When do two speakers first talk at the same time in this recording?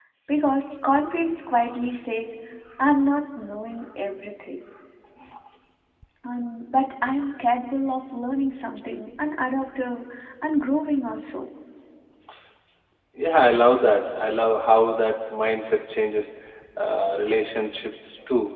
none

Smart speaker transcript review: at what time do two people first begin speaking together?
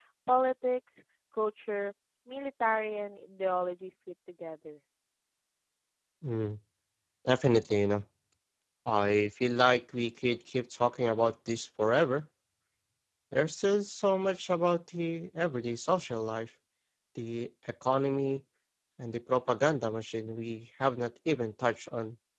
none

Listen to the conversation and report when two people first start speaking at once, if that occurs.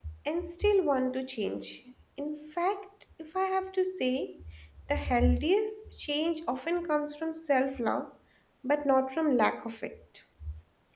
none

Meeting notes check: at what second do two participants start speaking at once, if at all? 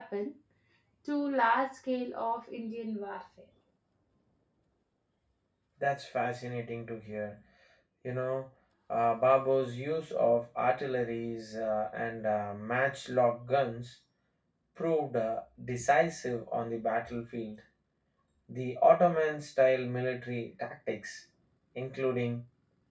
none

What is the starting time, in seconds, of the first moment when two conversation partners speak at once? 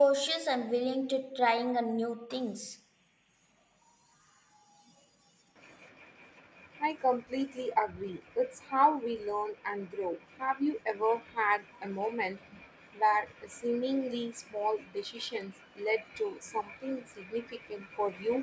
none

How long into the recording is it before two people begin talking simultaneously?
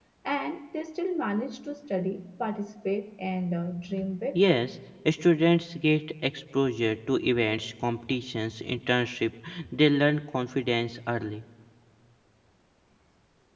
none

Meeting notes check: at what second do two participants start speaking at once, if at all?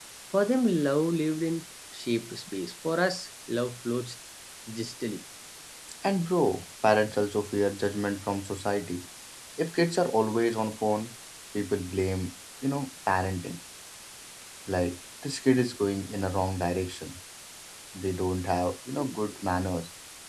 none

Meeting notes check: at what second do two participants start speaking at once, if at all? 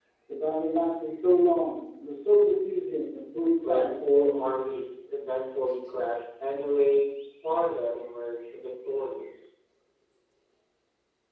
3.6 s

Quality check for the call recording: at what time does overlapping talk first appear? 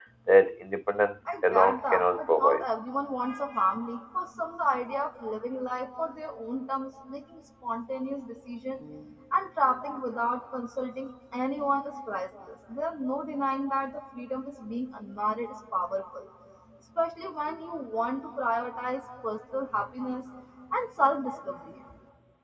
1.2 s

